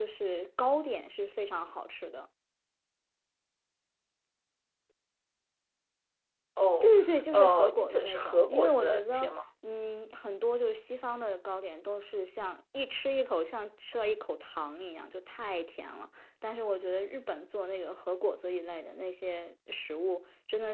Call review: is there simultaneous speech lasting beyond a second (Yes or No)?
Yes